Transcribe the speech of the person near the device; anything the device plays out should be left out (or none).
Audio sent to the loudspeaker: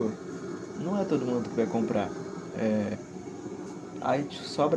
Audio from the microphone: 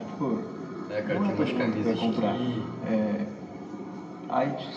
É, cara, tem umas camisas que